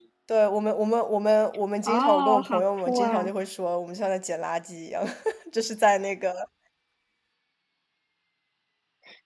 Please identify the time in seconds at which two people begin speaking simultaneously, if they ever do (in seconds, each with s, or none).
1.8 s